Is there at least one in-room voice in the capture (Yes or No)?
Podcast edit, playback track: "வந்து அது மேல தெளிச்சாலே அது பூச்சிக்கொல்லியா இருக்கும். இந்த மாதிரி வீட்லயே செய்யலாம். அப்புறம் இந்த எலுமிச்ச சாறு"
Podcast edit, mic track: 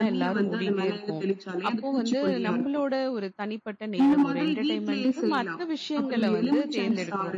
Yes